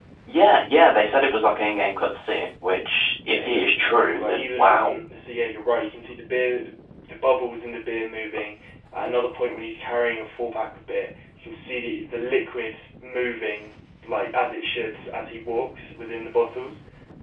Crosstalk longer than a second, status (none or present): present